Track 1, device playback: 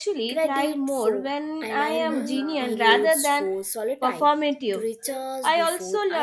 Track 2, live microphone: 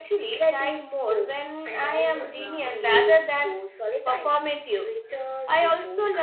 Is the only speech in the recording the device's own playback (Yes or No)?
Yes